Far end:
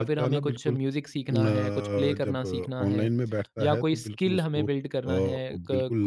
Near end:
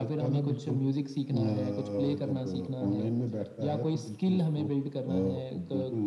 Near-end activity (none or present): none